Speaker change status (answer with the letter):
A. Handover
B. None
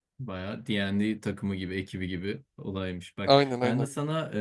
B